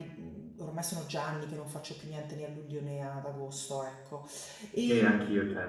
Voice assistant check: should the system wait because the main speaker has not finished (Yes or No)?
No